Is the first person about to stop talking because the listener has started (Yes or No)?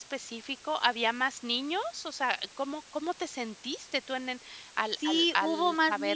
Yes